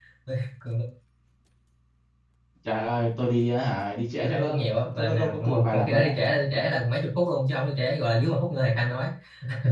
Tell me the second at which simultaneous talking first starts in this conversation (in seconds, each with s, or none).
4.2 s